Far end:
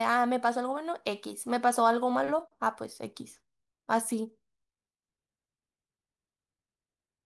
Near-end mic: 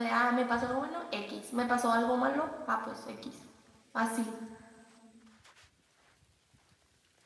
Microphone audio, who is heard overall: echo only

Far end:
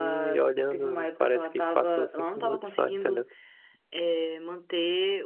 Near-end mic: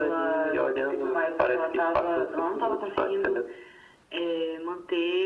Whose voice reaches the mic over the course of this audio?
echo only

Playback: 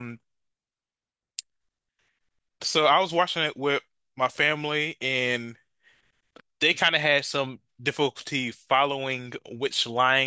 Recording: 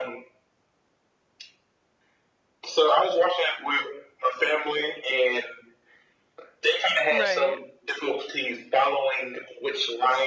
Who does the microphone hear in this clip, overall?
both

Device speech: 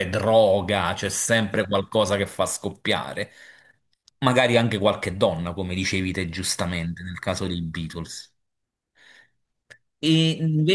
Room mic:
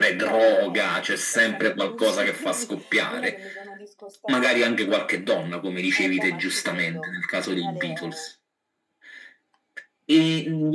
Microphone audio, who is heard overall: both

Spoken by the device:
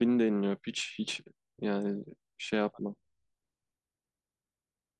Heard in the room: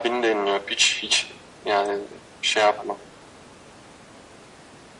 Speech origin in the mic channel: echo only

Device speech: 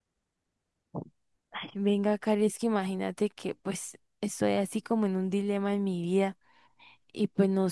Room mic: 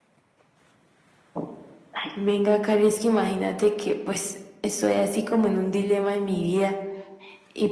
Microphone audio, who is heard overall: echo only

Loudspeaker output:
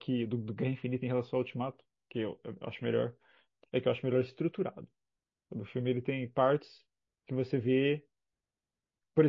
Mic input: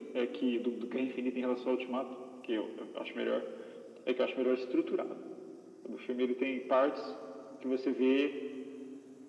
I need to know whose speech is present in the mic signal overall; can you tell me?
echo only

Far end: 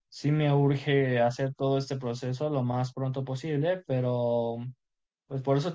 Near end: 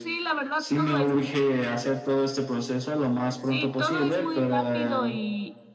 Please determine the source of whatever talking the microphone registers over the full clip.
both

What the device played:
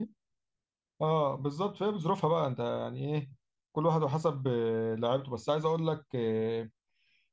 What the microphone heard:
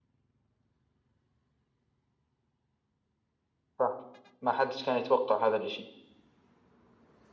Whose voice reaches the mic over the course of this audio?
user only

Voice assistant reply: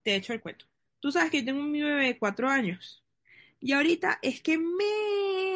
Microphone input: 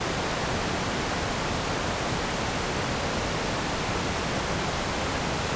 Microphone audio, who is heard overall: neither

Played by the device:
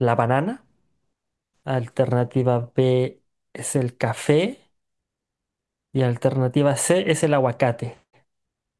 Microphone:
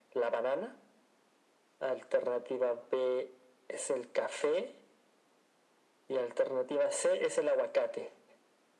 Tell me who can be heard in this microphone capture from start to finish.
echo only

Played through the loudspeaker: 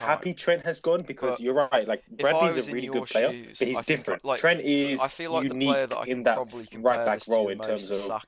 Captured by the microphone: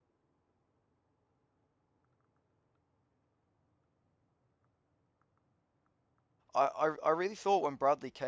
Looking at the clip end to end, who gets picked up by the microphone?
user only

